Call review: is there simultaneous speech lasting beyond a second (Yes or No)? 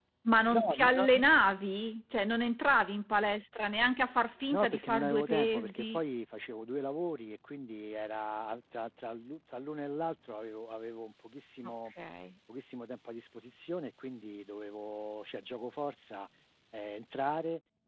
Yes